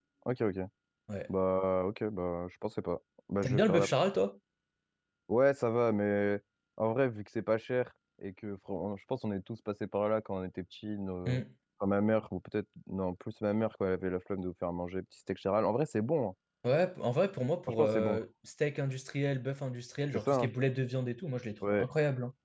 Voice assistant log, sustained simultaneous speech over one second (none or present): none